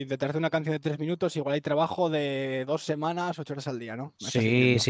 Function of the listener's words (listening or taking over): taking over